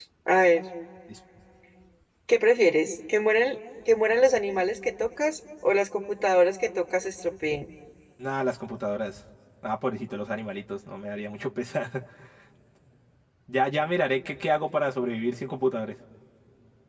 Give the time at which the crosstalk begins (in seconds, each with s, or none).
none